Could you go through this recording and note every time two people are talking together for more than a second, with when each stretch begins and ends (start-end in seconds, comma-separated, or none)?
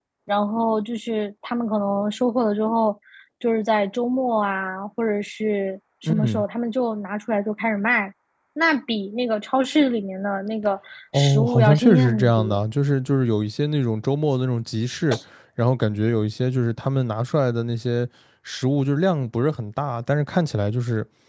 11.1-12.6